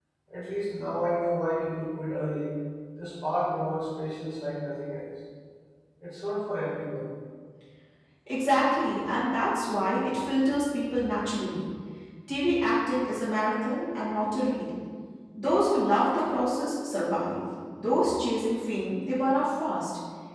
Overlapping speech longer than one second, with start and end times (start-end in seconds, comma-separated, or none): none